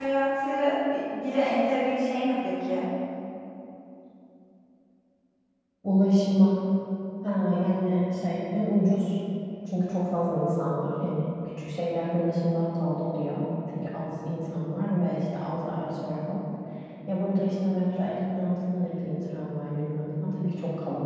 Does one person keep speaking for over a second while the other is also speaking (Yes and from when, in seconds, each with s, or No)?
No